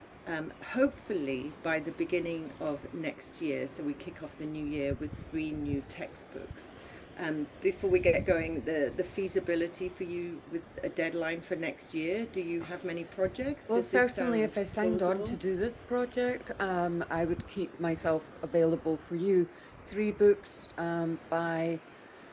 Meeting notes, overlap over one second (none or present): present